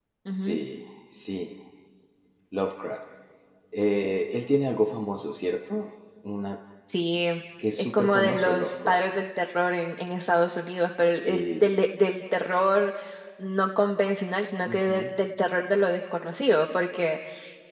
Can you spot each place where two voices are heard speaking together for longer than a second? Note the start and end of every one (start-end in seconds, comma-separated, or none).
7.8-9.0